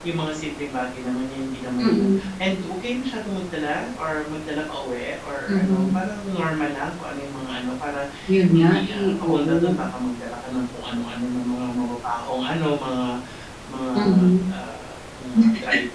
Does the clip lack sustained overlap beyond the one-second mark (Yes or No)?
No